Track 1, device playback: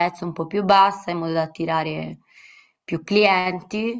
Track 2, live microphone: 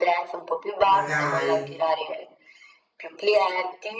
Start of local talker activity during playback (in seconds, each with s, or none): 0.8 s